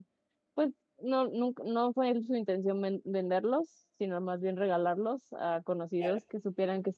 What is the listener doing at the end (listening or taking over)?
listening